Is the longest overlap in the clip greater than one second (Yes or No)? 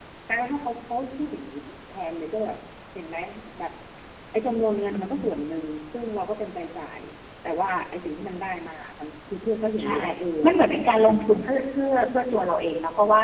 Yes